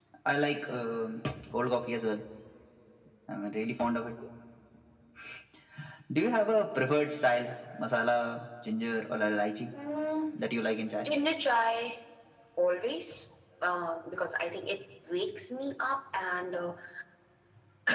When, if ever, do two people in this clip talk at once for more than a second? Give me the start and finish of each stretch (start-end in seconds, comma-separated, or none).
none